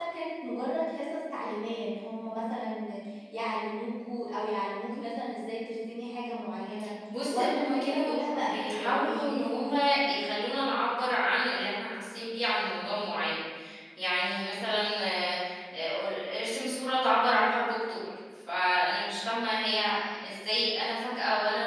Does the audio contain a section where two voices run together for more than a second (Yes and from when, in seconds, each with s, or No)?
Yes, from 7.1 s